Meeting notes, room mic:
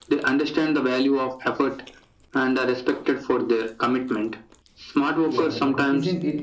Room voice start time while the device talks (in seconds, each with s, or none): 5.2 s